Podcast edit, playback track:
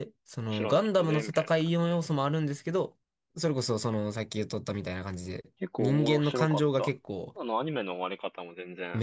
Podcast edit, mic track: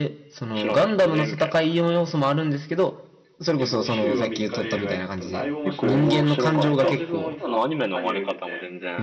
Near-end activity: present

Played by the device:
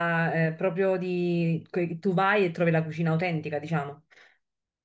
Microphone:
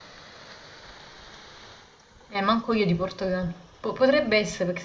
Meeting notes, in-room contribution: present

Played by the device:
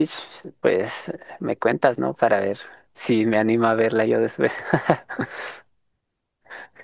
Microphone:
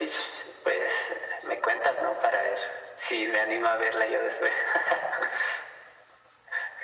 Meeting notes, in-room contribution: none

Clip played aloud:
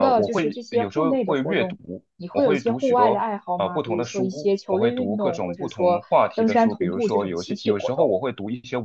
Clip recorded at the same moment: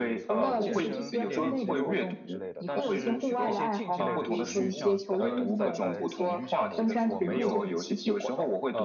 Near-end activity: present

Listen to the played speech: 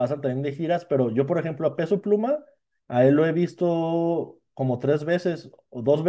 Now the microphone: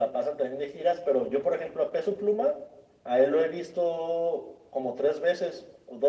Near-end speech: none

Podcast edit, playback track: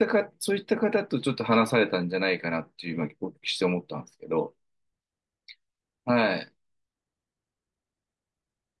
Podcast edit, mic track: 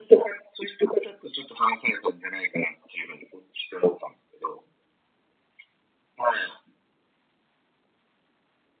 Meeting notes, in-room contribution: none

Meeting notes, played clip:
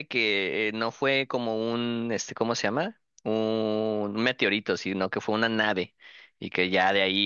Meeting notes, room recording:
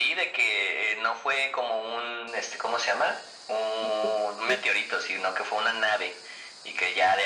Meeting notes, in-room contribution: present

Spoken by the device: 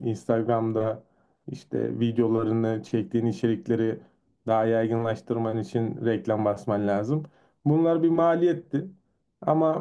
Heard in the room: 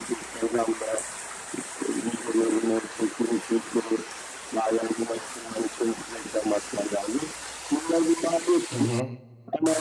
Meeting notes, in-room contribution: present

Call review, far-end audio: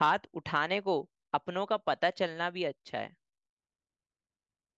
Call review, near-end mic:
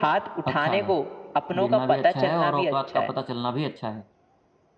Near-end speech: present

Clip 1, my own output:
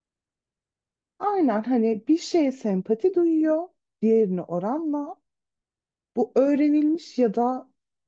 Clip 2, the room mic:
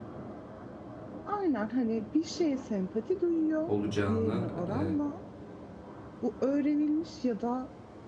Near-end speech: present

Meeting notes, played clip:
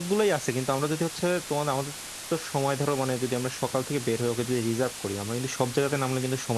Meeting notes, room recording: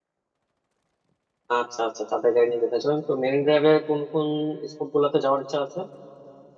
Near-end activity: present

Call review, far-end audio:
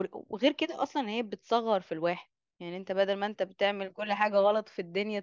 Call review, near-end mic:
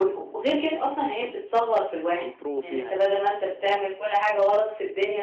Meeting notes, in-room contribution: present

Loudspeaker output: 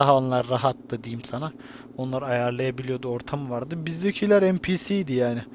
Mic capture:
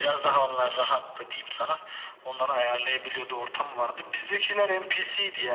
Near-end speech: none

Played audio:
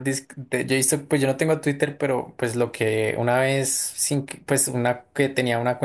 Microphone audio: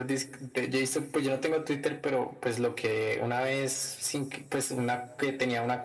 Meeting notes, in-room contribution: none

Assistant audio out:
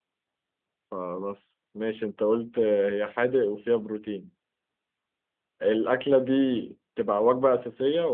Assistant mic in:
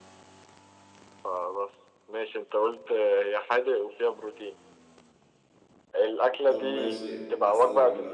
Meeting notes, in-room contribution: present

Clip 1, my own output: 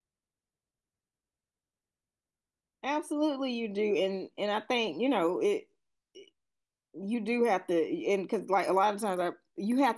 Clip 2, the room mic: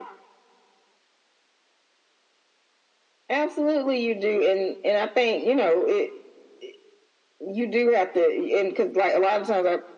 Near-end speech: none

